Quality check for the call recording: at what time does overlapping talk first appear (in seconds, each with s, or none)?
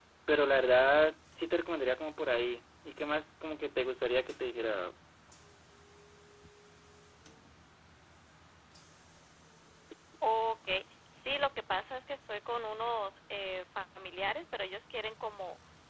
none